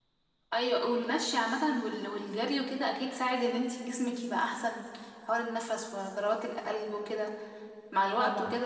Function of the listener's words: listening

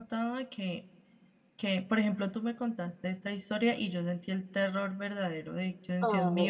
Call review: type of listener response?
listening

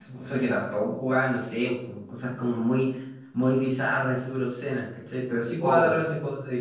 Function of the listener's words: listening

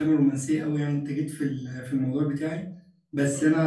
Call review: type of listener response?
listening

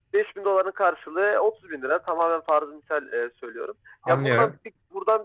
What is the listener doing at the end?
listening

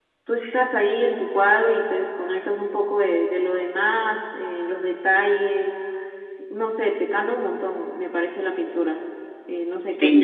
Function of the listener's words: taking over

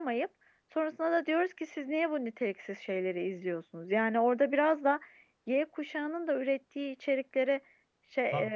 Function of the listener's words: listening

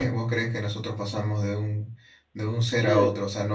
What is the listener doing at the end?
taking over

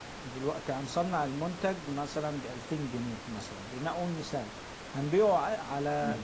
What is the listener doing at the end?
listening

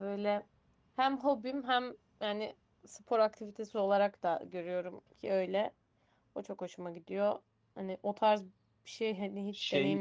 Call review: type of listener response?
taking over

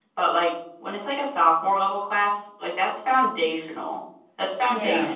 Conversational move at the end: listening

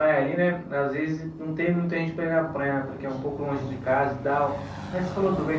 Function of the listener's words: listening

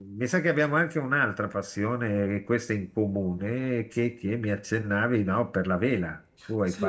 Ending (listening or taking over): taking over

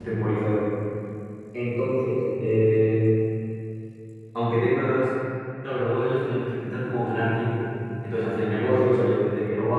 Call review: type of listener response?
listening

